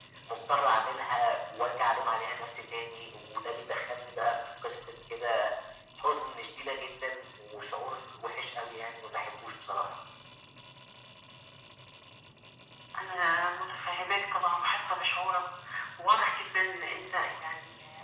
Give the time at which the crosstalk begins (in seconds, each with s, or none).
none